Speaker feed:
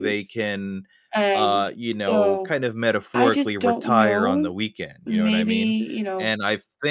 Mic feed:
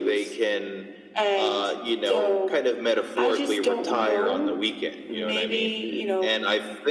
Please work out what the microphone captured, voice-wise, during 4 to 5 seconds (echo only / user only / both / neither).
echo only